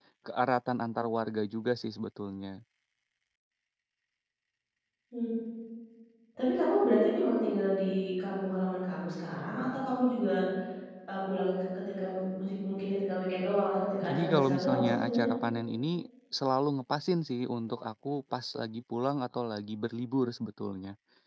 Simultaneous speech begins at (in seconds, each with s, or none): 14.0 s